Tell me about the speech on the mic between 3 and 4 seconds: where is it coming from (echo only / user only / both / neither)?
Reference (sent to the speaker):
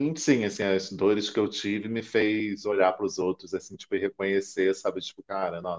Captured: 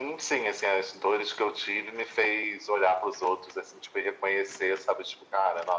echo only